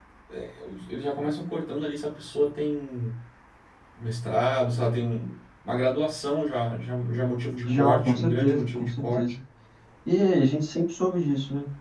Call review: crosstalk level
present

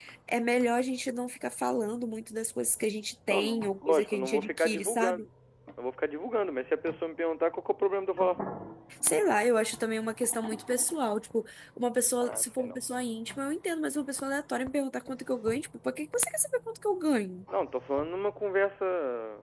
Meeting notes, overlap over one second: present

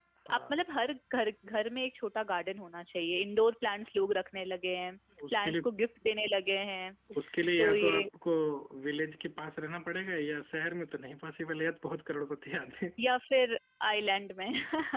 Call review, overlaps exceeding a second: none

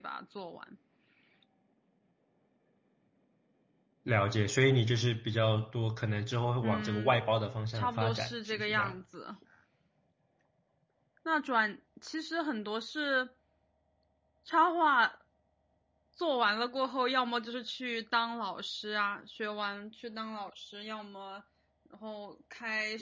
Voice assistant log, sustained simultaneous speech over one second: present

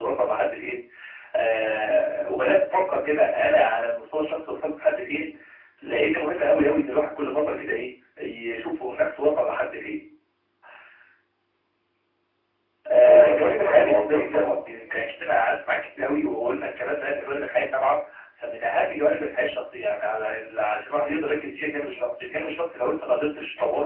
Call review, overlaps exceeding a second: present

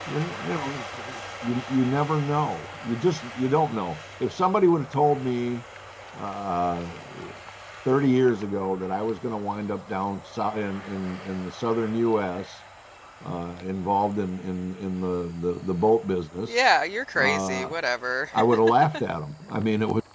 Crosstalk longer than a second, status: none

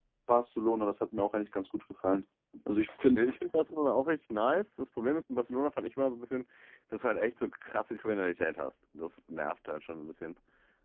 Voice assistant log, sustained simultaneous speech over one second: none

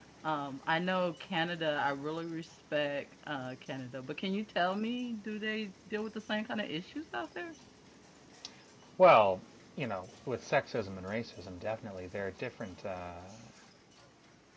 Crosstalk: none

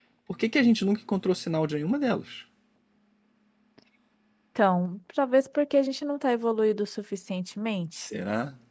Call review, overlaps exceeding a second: none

